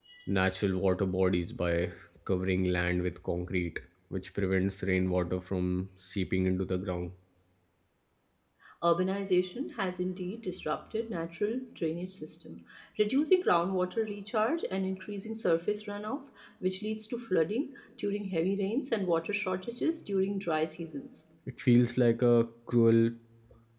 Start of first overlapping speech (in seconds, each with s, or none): none